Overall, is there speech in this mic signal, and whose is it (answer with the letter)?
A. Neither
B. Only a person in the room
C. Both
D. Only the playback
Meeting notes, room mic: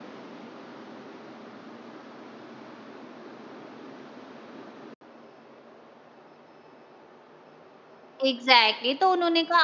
B